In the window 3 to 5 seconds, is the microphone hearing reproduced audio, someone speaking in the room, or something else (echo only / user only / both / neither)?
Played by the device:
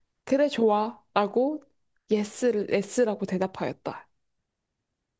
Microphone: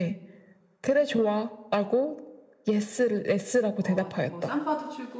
both